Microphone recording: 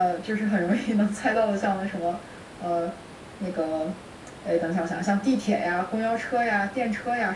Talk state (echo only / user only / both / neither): echo only